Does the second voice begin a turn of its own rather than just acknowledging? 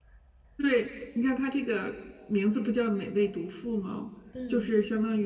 No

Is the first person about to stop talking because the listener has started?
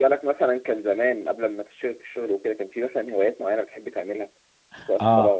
Yes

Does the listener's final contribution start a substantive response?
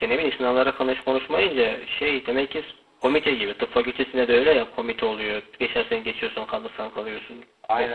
Yes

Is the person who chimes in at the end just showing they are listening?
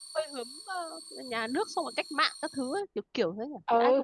No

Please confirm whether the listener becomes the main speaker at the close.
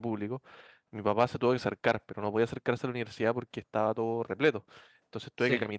No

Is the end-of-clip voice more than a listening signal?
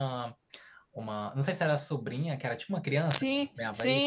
Yes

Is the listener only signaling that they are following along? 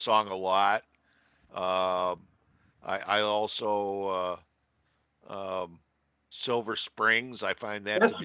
No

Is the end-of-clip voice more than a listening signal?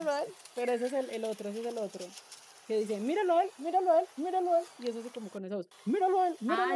Yes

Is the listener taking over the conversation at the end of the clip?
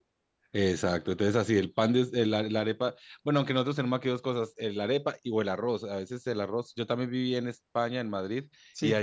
No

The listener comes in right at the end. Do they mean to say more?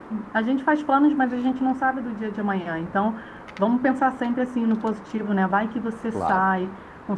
No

